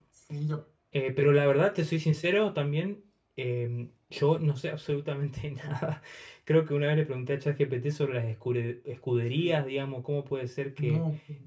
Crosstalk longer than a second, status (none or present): none